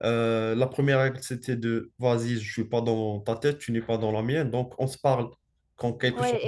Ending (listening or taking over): taking over